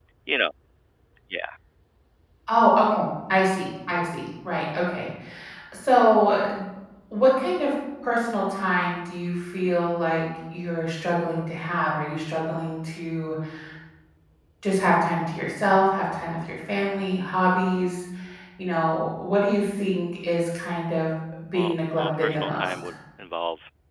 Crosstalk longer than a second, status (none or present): present